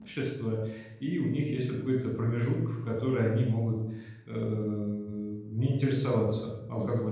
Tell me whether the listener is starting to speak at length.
Yes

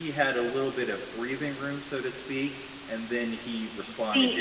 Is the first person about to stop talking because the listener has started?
Yes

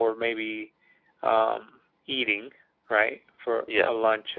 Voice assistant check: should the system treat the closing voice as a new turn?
No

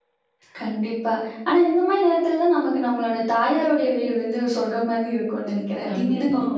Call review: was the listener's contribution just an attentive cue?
No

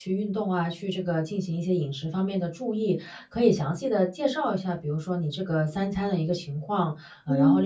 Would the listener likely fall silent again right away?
Yes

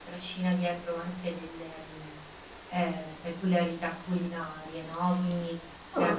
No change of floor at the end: Yes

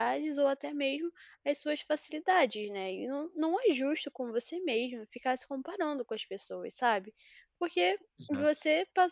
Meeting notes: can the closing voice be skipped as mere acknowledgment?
Yes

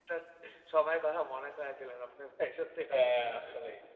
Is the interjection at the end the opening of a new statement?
Yes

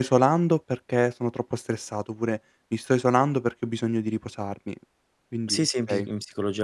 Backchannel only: No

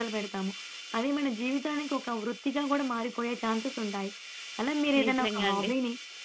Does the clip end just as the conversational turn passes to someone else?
No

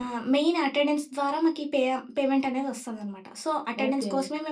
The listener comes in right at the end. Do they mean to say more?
No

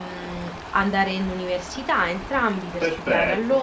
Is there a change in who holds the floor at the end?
Yes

